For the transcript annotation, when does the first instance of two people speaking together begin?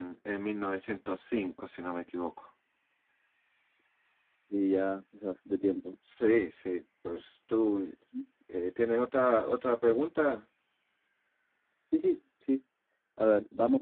none

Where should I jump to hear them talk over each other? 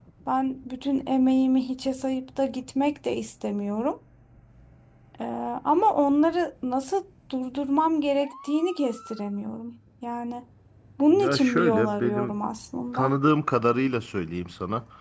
11 s

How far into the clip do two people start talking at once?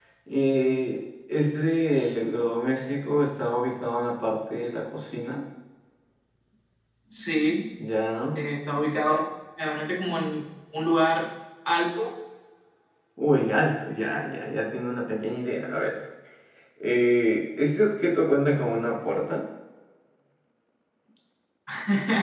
none

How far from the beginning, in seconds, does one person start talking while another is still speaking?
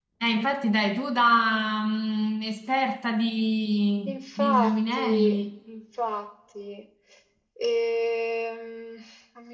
4 s

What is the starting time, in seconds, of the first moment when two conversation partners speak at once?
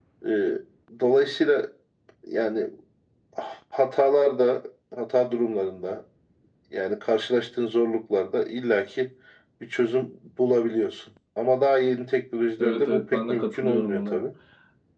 13 s

